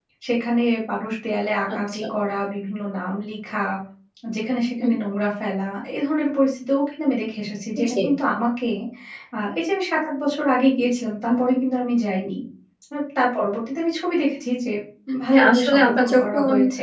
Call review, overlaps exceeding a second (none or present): present